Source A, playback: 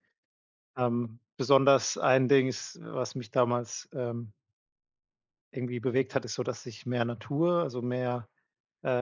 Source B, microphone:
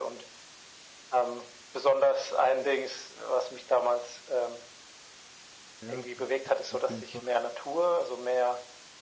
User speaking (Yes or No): Yes